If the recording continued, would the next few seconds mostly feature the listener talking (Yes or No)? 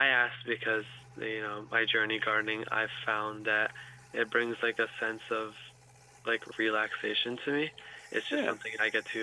No